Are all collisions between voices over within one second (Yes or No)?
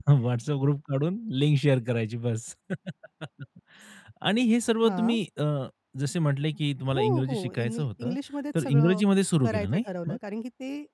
No